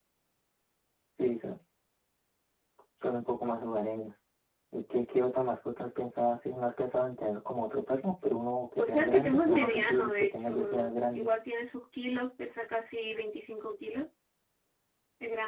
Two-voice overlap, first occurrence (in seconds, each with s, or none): 8.8 s